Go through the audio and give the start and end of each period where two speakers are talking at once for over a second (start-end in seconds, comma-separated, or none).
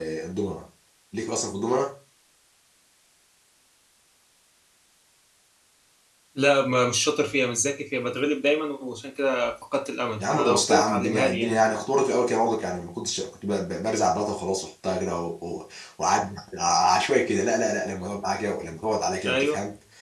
10.2-11.6